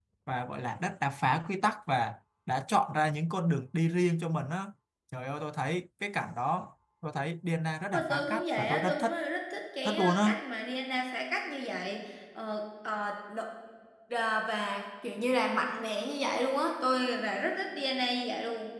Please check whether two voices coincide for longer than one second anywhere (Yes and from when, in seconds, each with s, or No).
Yes, from 7.9 s